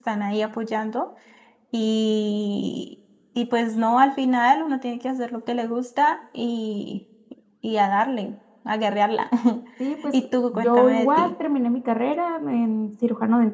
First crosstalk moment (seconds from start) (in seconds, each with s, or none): 10.1 s